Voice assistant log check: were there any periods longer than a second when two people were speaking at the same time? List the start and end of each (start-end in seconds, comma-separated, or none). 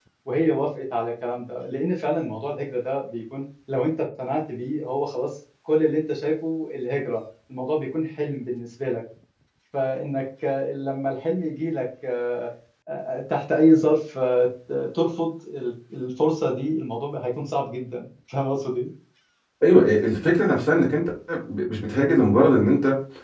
none